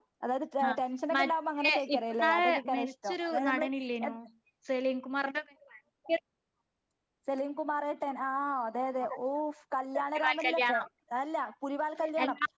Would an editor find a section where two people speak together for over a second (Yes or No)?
Yes